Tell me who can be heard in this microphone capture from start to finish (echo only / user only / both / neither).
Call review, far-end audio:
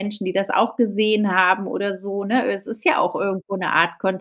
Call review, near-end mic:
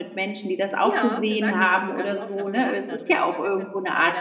both